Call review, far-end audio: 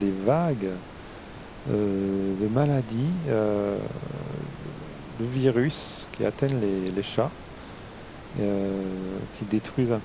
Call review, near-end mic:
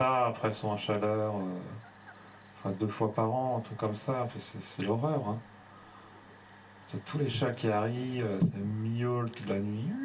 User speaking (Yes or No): Yes